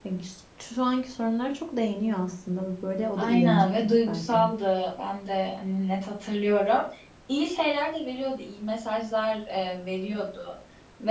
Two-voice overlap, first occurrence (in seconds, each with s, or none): 3.2 s